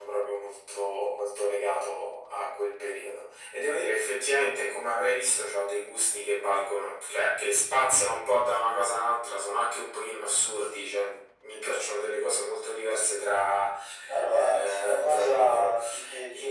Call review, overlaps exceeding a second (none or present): present